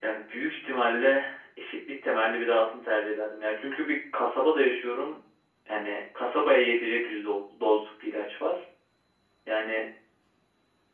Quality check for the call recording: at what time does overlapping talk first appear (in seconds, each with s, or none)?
none